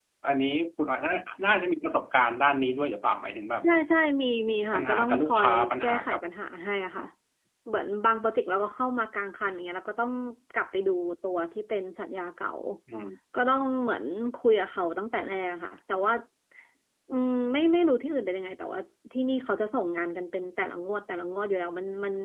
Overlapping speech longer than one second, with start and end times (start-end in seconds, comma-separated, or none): 4.7-6.2